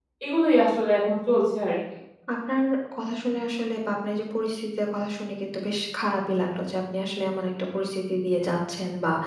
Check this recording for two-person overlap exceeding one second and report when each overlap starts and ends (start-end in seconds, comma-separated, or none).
none